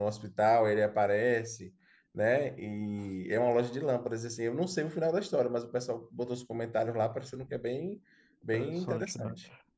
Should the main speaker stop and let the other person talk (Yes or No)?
Yes